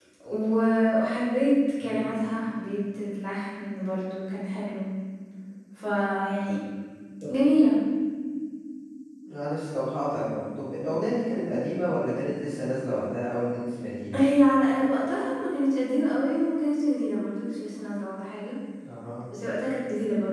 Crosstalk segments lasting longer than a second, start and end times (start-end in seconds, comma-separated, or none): none